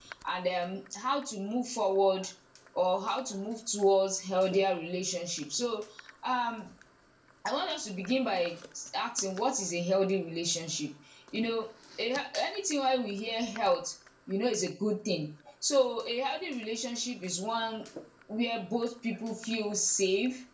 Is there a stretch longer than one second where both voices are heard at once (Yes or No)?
No